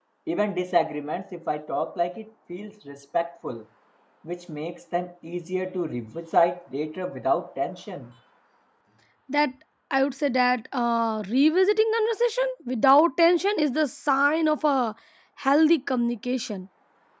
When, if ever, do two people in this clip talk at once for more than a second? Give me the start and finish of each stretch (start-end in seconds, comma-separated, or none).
none